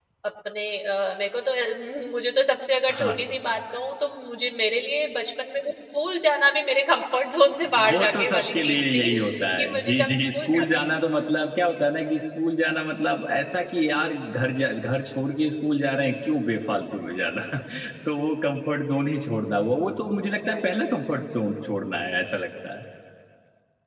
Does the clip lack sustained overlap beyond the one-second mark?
No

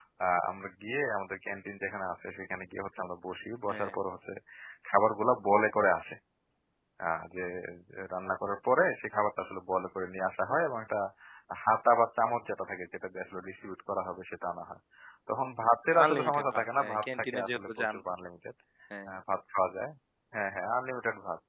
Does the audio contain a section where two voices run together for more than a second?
Yes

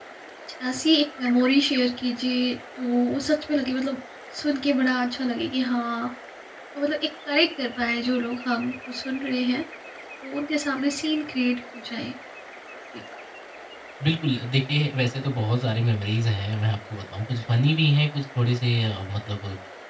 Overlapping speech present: No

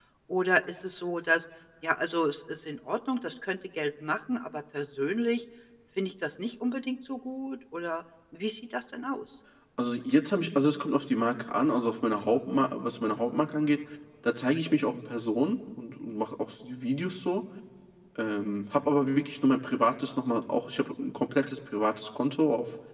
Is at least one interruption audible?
No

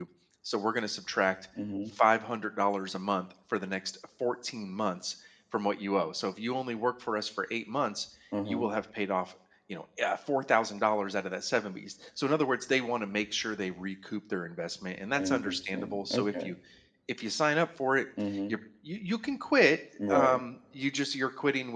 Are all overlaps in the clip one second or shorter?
No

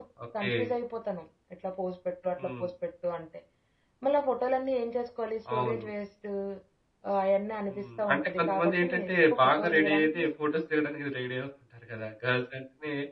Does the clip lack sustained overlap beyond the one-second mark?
No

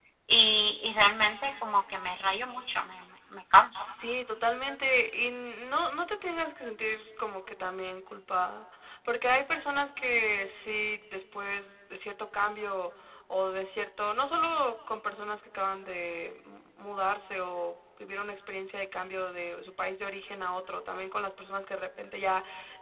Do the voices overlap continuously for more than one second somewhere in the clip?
No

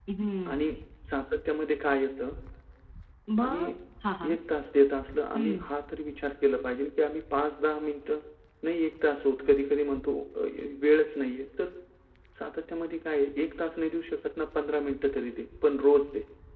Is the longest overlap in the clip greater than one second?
No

